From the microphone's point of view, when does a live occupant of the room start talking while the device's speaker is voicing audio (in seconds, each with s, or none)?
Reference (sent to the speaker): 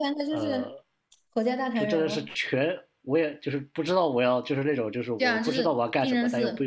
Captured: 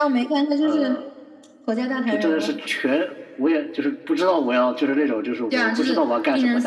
none